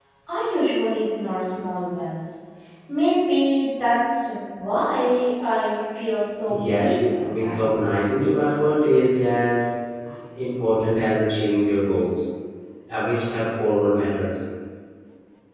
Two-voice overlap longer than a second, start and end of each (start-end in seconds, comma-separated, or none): 6.5-7.8